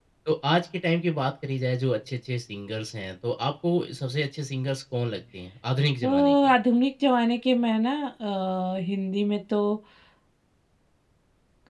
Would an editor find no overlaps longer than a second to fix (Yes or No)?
Yes